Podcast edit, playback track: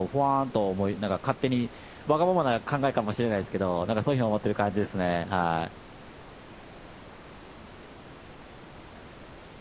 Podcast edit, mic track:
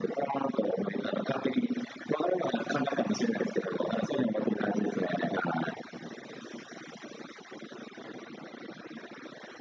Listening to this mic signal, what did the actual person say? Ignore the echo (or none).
none